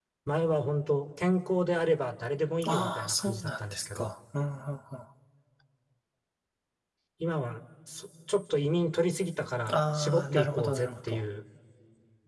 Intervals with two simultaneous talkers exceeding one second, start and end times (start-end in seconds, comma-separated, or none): 2.7-4.1, 9.7-11.2